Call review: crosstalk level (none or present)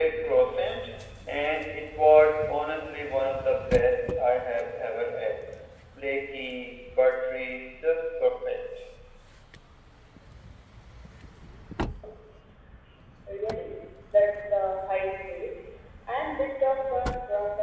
none